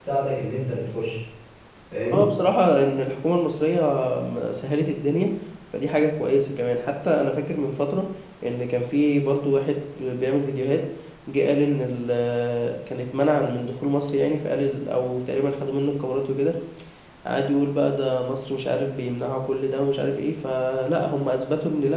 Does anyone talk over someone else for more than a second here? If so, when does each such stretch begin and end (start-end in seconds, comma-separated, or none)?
none